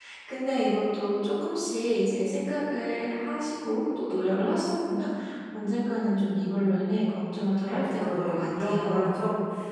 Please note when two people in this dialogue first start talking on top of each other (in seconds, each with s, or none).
7.7 s